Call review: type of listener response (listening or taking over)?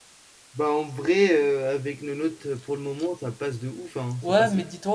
taking over